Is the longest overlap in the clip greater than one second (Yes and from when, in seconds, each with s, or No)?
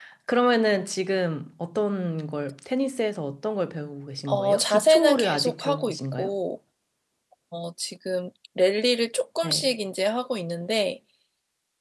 Yes, from 4.3 s